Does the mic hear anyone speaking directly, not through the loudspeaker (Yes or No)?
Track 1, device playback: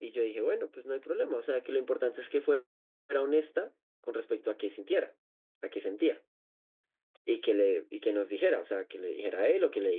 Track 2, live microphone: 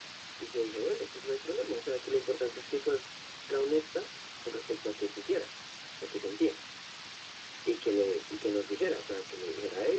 No